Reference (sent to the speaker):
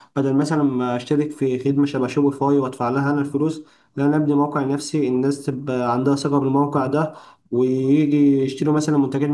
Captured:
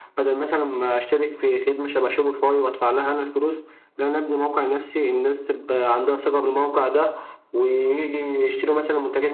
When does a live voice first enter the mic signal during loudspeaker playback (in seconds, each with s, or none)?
none